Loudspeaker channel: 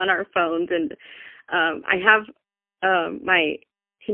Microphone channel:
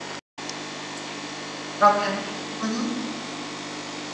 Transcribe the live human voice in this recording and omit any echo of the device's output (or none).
Okay. Mhm.